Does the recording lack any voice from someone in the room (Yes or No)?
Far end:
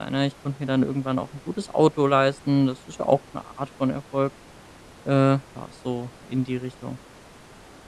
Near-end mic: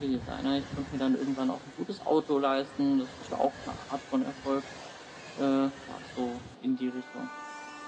Yes